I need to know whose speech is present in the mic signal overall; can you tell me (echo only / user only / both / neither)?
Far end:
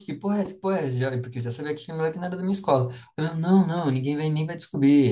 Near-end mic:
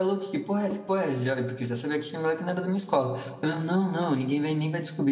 echo only